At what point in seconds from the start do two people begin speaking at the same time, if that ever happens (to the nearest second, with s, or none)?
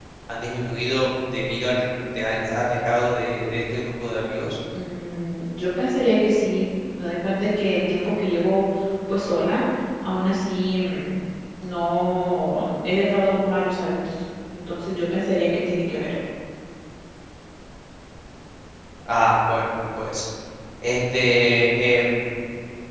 none